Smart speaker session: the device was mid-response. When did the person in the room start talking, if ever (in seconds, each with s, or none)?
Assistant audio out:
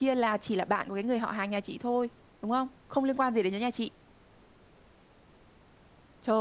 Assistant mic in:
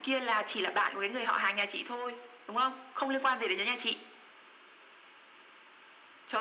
none